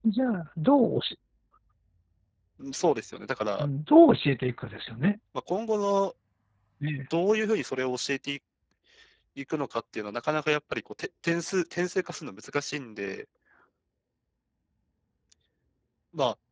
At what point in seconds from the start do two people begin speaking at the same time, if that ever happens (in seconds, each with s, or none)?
none